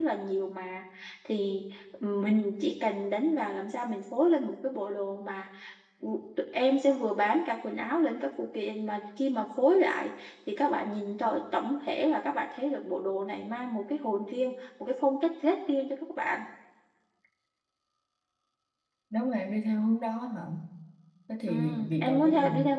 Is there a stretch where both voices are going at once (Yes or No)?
Yes